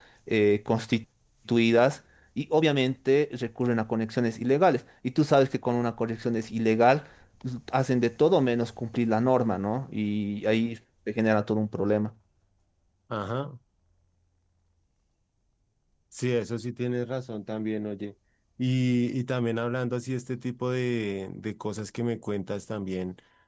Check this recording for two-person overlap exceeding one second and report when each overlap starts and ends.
none

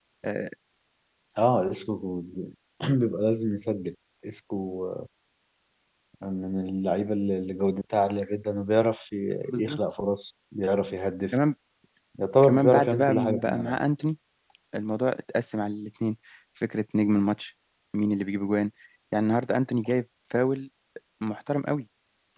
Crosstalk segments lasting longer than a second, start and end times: 12.4-13.8

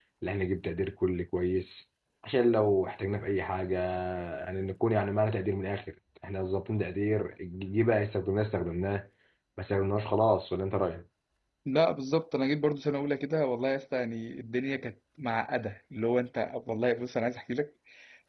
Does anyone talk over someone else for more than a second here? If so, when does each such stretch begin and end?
none

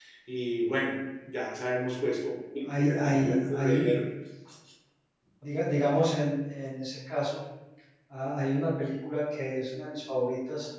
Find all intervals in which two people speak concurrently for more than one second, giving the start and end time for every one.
2.6-3.9

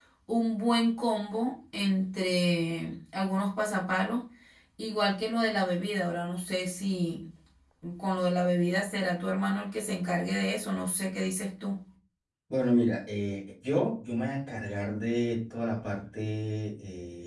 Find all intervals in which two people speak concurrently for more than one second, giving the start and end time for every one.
none

